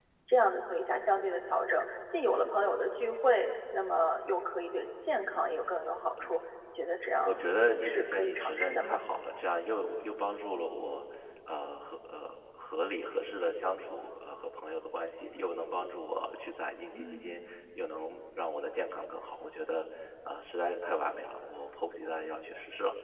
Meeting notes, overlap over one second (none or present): present